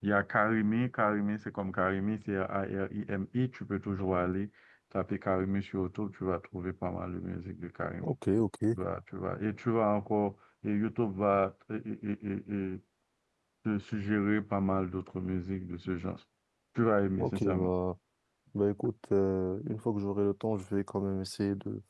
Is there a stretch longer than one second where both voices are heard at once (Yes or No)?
No